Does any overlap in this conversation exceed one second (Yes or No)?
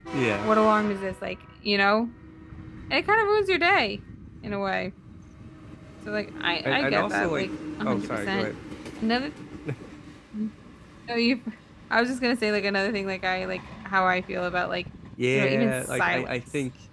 Yes